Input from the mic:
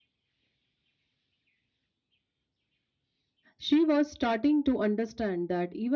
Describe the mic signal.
user only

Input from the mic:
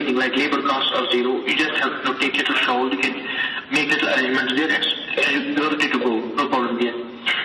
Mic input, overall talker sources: both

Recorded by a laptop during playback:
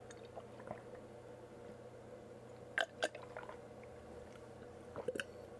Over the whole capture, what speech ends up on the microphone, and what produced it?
neither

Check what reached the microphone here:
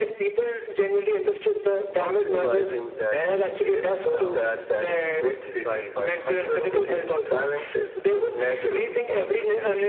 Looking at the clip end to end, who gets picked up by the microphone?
both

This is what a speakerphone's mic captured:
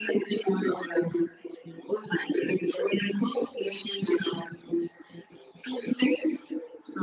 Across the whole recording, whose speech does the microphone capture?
echo only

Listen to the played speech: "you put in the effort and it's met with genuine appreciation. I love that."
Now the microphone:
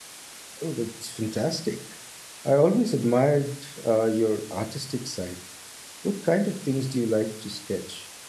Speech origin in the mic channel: user only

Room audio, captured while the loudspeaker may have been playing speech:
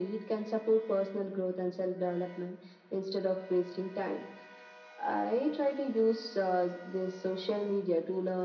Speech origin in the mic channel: echo only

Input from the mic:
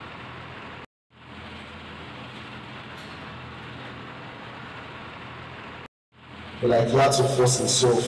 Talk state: user only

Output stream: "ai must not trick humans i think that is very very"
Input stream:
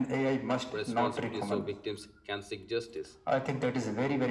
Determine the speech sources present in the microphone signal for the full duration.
both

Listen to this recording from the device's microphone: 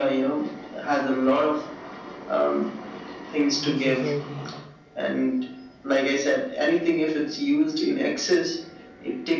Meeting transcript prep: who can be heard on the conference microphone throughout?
both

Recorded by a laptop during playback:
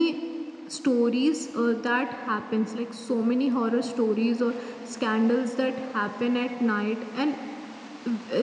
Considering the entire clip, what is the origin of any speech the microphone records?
echo only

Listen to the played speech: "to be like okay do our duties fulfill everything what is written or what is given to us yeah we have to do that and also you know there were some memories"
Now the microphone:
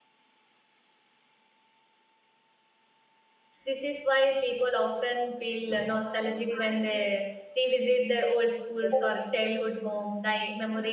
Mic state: user only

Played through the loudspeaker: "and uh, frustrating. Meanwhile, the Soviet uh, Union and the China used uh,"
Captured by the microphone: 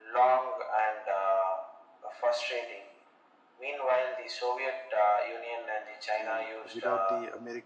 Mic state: both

